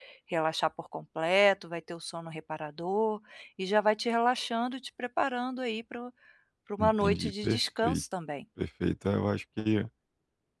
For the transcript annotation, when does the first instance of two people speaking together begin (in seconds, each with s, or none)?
6.8 s